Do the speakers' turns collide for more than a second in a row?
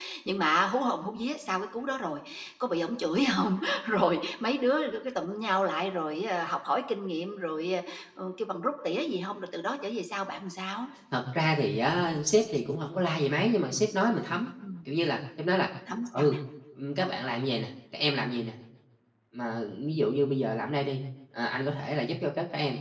No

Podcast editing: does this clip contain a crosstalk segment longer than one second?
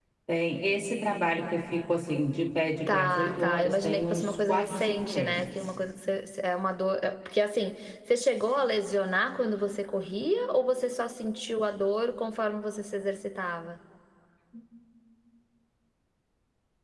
Yes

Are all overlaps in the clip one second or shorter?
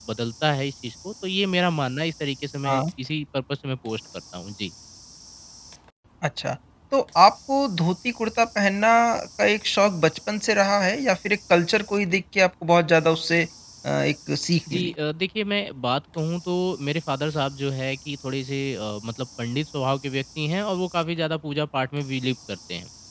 Yes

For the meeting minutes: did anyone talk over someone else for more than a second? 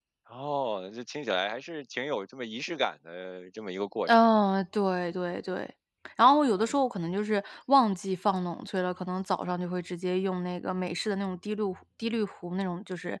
No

